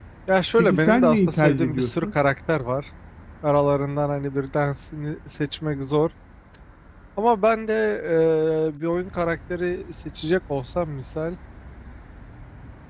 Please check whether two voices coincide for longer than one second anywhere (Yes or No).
Yes